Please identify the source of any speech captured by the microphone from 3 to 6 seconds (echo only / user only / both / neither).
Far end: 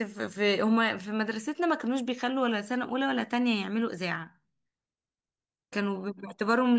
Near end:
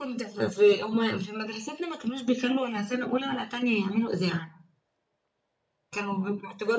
echo only